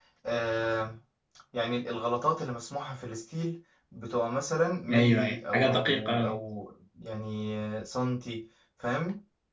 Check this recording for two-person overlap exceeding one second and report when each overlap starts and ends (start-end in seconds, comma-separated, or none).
4.9-6.4